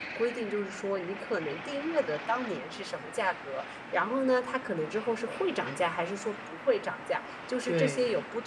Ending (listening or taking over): listening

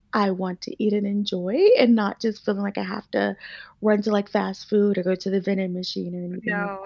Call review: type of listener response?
taking over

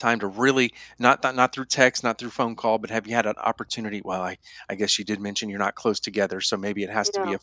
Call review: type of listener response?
listening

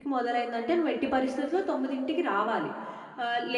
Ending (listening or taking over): listening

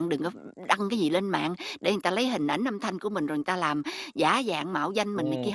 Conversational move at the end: taking over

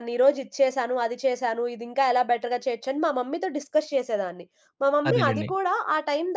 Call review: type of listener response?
listening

